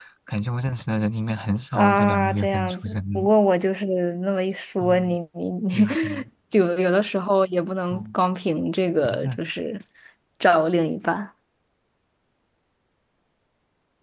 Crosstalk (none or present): present